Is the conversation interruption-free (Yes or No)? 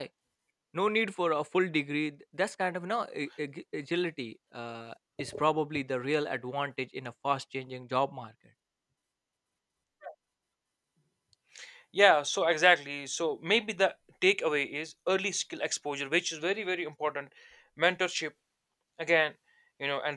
Yes